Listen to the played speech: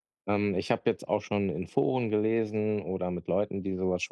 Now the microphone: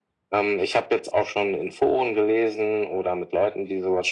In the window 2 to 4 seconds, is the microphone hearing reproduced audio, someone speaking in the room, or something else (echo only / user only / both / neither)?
echo only